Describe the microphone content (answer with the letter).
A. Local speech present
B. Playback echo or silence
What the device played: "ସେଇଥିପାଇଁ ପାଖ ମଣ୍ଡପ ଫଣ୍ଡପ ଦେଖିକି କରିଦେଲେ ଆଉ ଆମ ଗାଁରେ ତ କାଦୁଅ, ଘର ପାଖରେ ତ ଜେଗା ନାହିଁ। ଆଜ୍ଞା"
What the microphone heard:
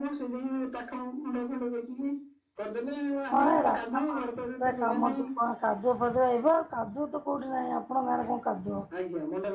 A